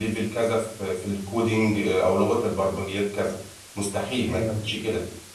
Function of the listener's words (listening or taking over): listening